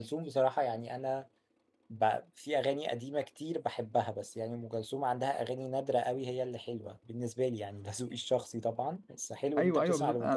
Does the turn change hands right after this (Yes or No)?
Yes